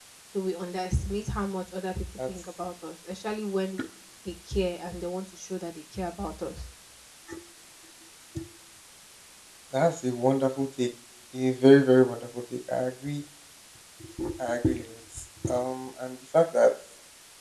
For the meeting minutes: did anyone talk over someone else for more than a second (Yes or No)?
No